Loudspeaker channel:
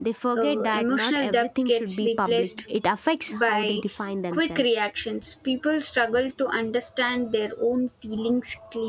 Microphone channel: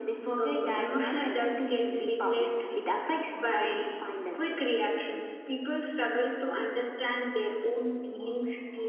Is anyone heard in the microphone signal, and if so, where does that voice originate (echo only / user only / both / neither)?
echo only